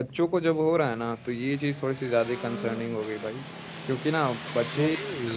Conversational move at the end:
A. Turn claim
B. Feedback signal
B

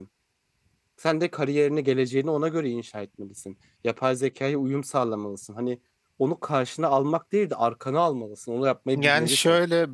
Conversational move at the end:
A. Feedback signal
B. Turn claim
B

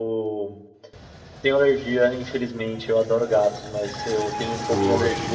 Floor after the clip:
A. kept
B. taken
A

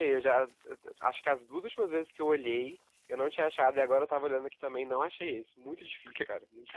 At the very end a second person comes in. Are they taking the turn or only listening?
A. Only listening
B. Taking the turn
B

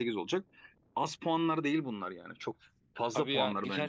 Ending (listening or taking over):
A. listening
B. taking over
B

